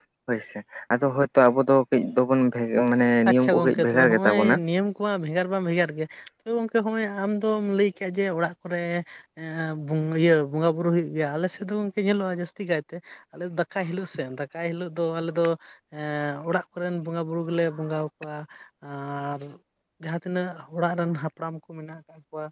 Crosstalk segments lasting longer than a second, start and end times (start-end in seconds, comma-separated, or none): 3.3-4.5